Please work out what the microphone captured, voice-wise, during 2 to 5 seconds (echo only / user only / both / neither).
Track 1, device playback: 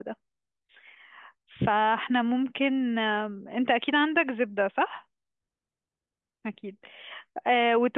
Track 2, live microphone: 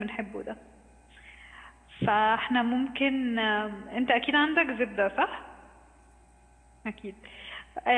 echo only